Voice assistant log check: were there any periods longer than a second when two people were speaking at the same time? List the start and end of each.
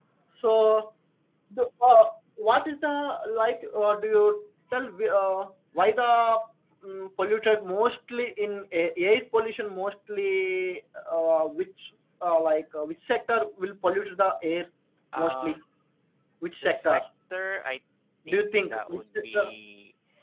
18.3-19.5

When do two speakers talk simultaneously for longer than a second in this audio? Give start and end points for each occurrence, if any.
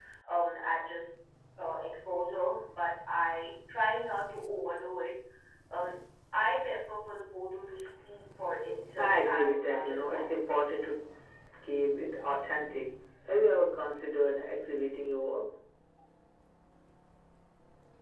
9.0-10.5

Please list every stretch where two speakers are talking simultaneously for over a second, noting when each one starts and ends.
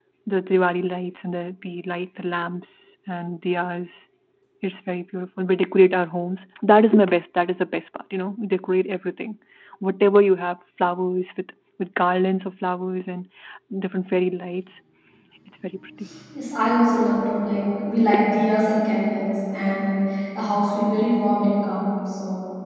none

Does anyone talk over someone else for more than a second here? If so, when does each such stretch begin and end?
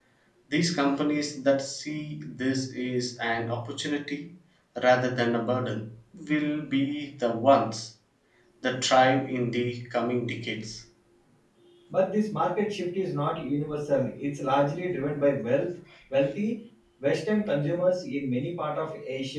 none

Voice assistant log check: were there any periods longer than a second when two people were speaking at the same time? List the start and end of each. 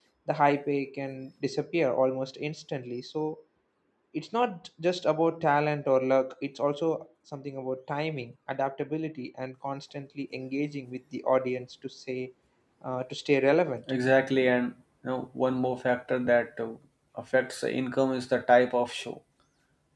none

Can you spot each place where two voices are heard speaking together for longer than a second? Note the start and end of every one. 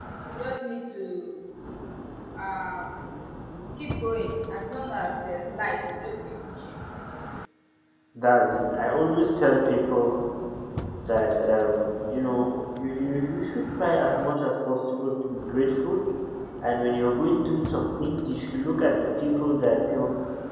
none

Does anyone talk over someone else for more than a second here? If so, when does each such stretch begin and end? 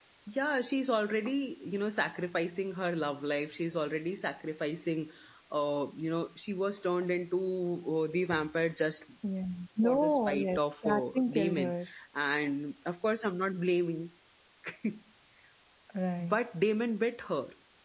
9.8-11.7

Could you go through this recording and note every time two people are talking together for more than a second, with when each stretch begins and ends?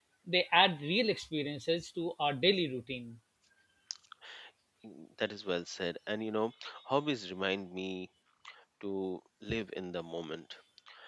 none

